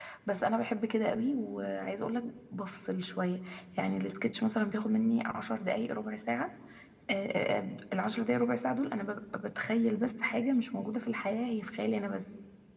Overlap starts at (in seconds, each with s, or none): none